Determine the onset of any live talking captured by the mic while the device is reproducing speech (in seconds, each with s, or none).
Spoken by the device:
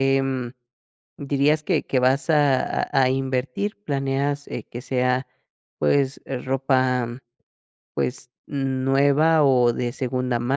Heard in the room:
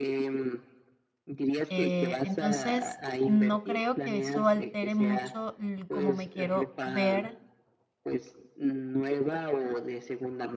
1.7 s